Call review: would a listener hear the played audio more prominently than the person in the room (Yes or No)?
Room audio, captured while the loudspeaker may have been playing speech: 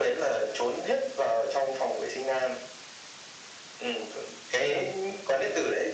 Yes